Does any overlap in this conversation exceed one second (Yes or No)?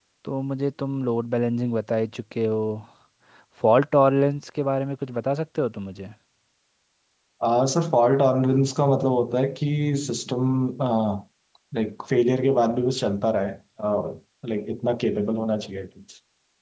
No